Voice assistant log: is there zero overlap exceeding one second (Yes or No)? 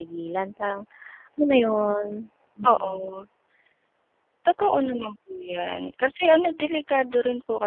Yes